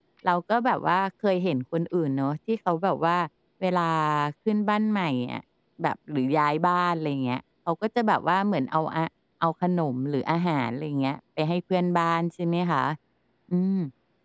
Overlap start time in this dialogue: none

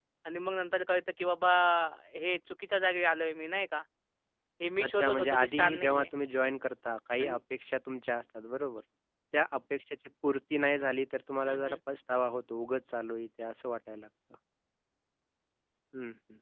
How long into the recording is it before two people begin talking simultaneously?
4.8 s

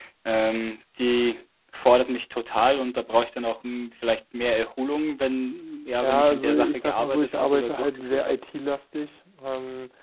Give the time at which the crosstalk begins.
6.0 s

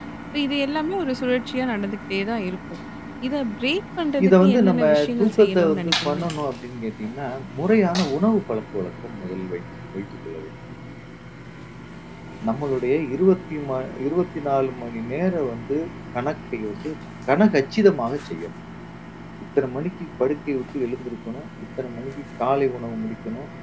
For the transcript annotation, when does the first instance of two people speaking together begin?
4.2 s

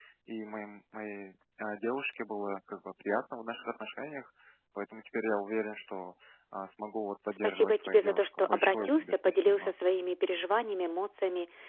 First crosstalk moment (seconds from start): 7.4 s

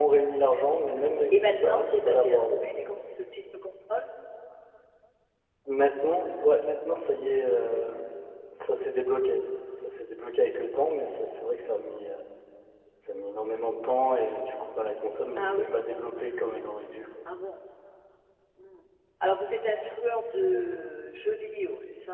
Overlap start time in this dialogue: 1.3 s

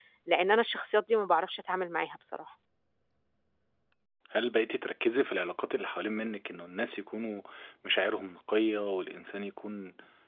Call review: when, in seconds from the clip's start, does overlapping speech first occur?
none

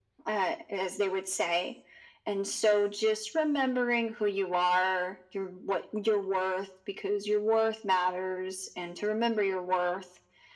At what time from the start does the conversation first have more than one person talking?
none

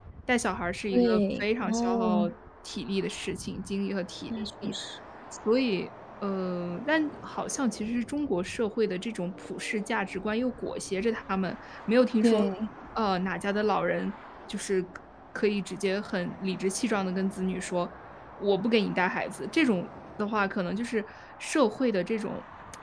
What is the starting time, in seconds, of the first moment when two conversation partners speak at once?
0.9 s

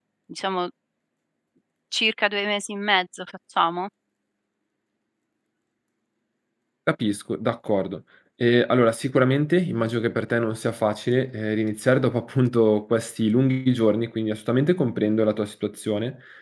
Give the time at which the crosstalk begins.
none

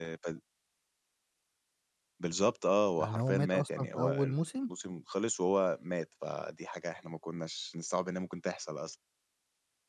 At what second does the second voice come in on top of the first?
3.0 s

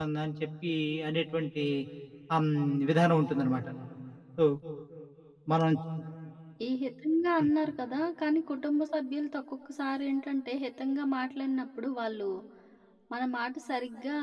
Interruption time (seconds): none

